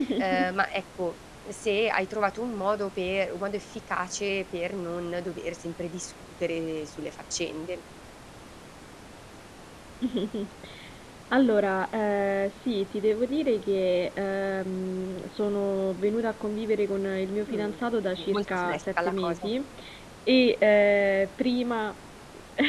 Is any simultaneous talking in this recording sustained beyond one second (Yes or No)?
Yes